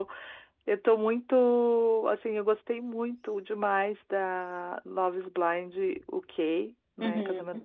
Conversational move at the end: listening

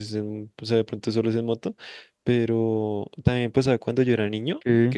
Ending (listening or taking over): listening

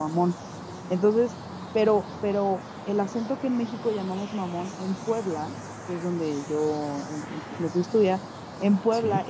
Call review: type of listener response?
listening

